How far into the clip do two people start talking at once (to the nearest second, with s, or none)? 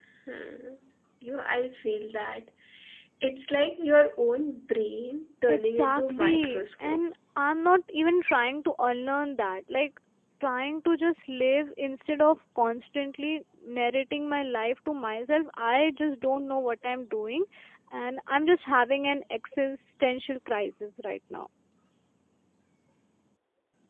5 s